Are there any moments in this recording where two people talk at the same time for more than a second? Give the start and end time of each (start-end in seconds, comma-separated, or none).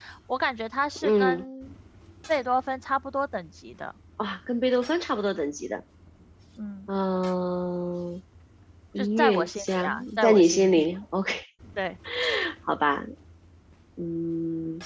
9.0-10.9